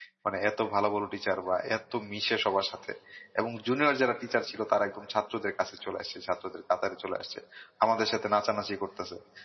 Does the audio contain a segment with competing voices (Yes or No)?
No